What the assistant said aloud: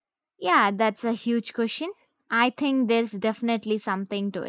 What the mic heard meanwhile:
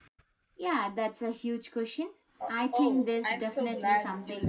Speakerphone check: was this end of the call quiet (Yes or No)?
No